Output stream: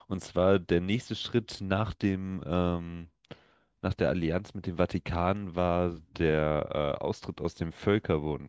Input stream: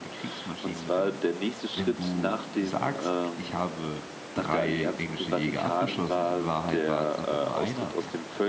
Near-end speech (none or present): present